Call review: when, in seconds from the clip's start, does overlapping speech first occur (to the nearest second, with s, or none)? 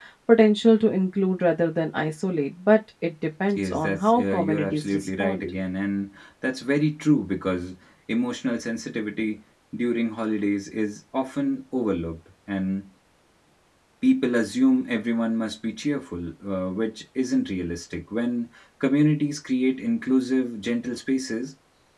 4 s